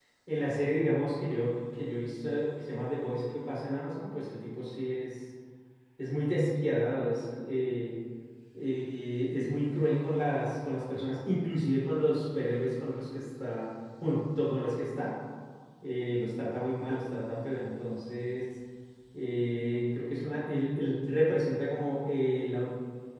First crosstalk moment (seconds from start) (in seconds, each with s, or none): none